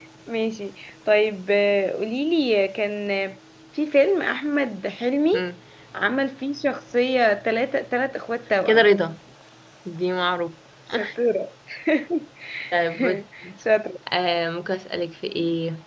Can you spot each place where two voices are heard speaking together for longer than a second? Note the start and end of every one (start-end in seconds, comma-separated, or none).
none